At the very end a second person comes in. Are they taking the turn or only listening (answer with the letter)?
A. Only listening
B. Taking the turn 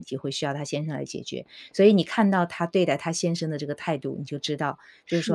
A